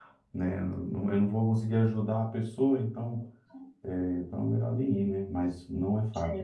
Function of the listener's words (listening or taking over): listening